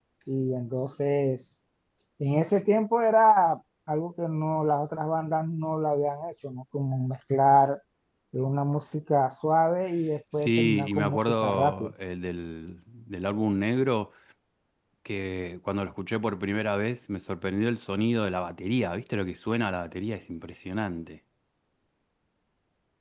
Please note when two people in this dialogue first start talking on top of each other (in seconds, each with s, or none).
10.3 s